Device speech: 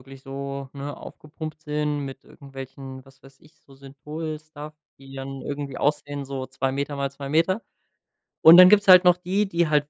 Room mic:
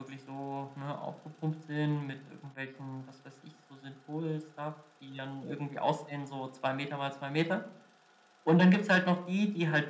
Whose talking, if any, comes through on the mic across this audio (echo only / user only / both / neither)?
echo only